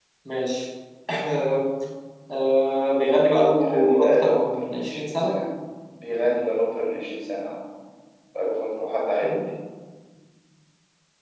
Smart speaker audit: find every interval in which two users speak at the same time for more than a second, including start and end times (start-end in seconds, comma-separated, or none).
3.6-5.3